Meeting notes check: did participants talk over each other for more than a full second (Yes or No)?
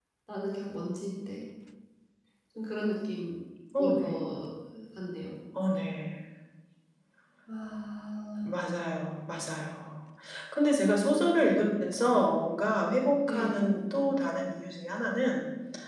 No